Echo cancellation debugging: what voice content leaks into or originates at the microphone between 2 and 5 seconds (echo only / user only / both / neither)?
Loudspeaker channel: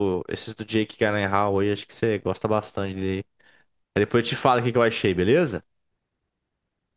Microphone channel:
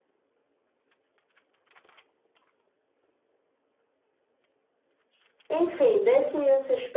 neither